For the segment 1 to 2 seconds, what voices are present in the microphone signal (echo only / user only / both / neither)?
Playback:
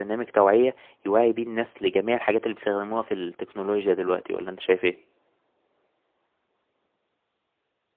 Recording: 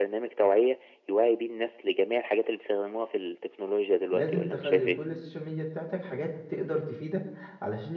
echo only